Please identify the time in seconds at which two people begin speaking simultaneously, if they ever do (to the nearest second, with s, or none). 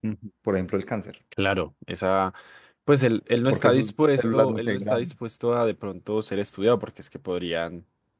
4 s